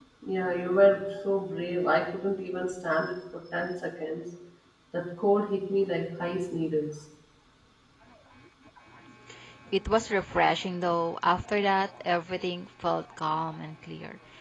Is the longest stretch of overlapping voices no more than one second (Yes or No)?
Yes